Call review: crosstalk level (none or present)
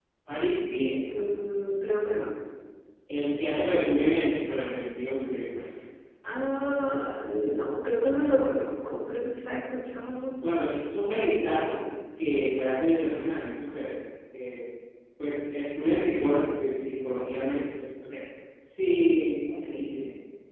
none